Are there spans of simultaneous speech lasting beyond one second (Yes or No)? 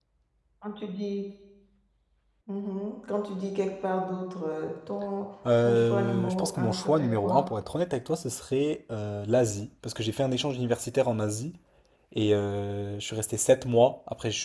Yes